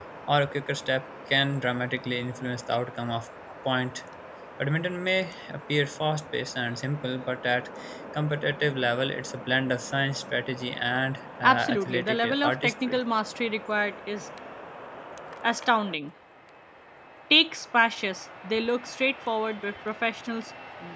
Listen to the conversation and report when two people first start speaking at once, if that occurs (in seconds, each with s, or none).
11.4 s